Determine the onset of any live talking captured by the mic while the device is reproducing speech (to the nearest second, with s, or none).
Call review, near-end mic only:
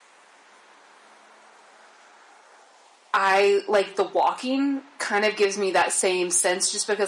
3 s